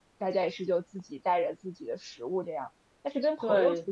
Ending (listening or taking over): listening